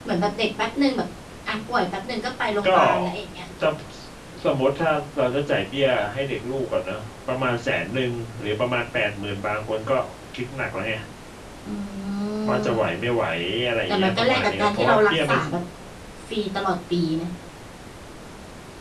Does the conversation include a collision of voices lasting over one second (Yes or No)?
Yes